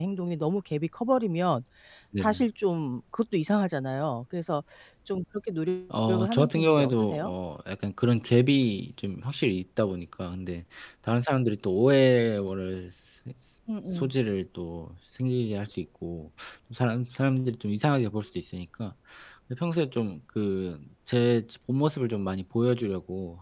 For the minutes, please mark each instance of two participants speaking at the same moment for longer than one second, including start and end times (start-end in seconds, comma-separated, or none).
6.1-7.3